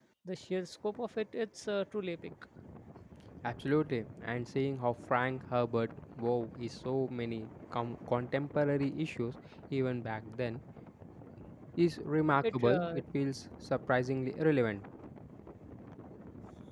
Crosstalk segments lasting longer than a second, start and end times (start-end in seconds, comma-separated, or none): none